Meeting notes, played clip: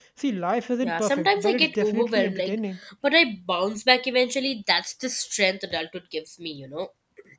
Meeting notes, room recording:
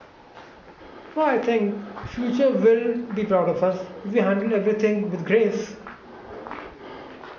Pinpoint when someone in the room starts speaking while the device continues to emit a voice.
1.1 s

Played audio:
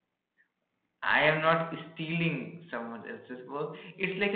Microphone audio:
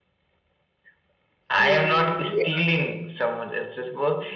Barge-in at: 1.6 s

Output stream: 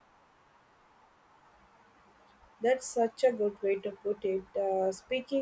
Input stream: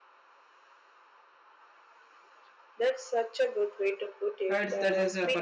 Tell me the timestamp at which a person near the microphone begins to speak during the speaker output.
4.5 s

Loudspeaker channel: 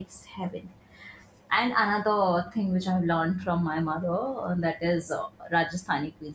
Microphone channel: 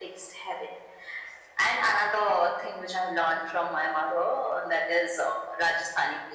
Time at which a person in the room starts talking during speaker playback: none

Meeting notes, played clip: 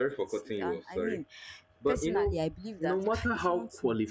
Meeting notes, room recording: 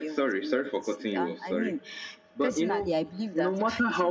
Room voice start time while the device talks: none

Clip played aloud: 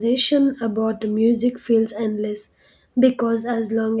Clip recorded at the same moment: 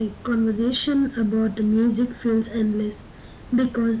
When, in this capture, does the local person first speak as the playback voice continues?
none

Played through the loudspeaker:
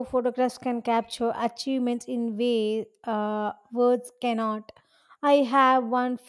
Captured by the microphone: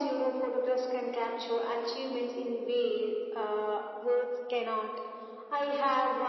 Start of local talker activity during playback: none

